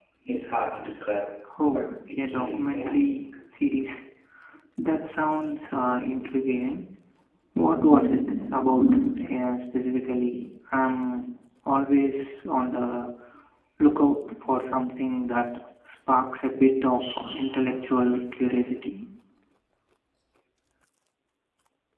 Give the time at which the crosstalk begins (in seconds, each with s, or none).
1.6 s